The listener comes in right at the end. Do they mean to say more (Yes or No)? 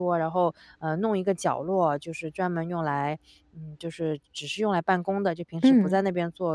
No